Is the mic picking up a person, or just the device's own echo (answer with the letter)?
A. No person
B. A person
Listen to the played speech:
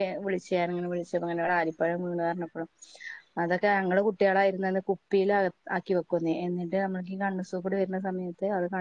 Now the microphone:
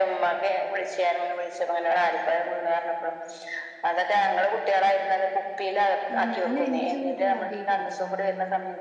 B